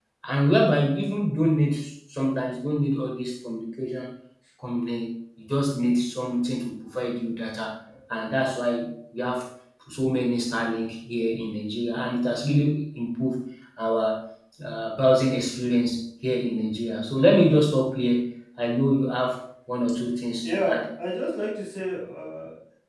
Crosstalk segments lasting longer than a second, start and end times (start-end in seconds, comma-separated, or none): none